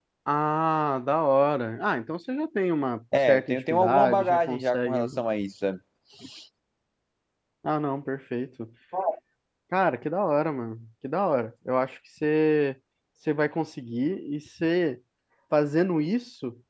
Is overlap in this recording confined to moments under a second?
No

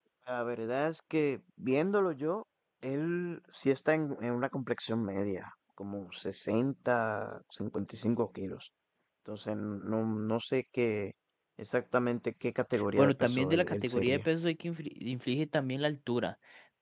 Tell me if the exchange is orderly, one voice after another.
No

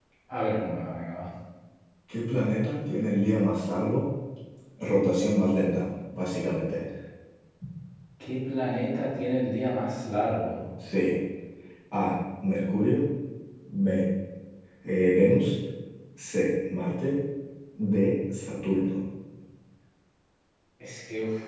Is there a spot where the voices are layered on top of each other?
No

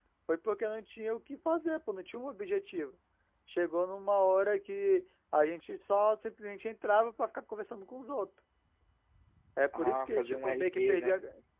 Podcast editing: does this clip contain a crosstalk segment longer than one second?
Yes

